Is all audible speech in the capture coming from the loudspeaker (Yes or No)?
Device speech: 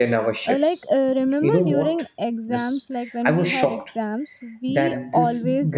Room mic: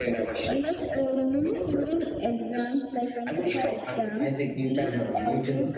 No